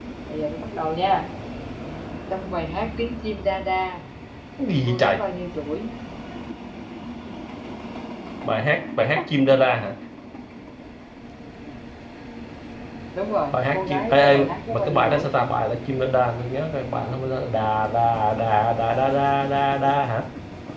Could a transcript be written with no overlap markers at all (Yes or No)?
No